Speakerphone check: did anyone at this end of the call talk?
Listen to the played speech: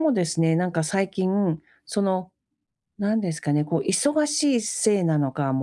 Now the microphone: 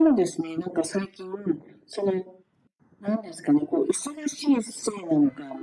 No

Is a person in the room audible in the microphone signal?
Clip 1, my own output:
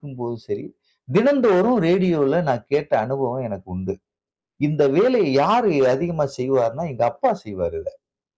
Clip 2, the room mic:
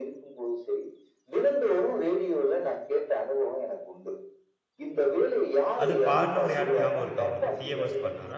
Yes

